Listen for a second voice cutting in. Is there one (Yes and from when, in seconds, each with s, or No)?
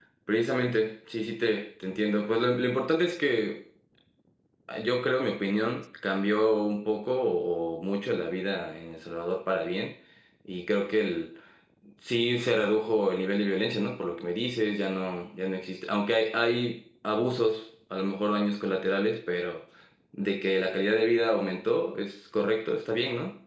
No